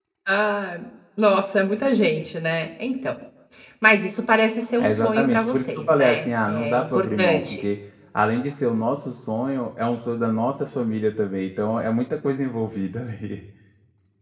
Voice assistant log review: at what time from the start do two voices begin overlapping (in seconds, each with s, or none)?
4.8 s